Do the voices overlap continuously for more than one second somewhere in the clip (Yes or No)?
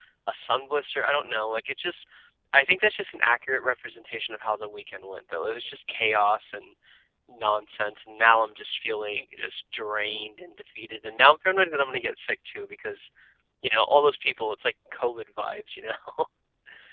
No